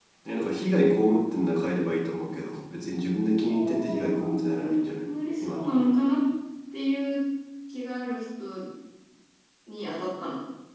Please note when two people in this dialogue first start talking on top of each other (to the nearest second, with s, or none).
3 s